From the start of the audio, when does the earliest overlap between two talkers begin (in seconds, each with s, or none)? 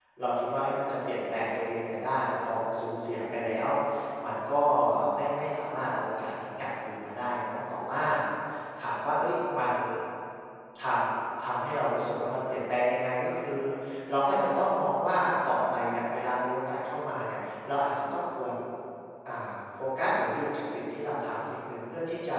none